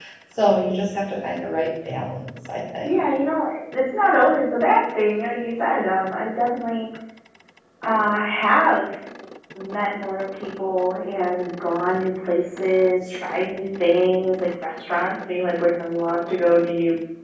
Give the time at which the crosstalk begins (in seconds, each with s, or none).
none